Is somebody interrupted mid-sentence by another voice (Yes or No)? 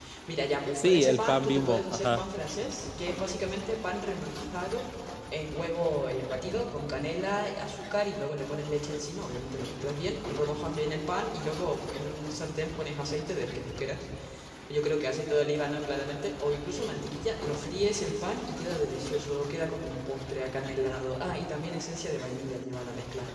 Yes